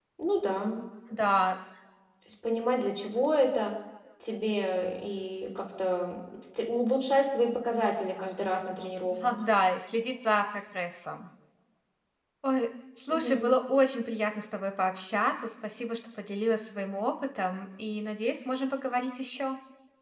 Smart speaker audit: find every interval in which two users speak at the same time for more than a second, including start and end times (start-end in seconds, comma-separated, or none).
none